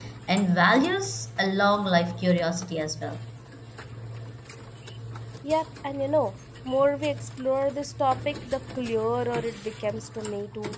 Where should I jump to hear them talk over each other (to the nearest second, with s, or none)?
none